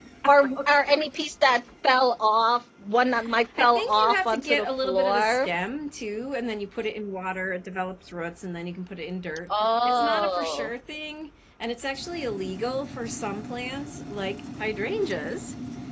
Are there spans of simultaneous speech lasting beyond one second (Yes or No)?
Yes